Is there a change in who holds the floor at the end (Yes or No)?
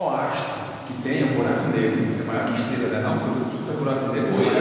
Yes